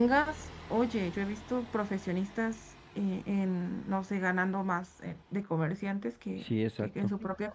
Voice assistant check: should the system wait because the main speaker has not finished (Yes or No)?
Yes